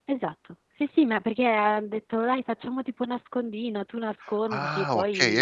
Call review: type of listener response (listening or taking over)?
taking over